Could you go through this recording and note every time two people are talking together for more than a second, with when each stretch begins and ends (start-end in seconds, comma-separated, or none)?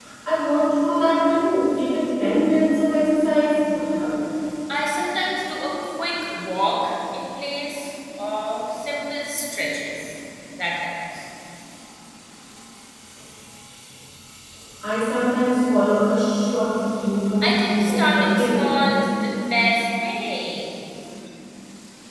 17.4-19.0